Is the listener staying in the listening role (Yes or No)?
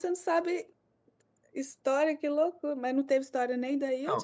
No